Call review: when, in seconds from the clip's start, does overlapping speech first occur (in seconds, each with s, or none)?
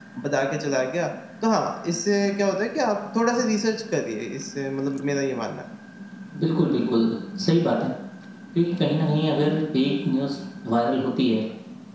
none